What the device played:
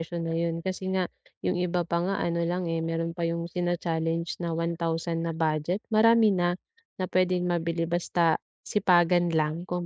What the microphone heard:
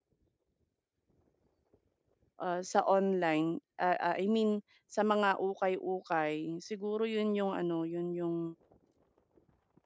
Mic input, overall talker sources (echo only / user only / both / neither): user only